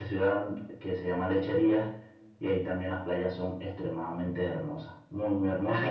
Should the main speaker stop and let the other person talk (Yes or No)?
No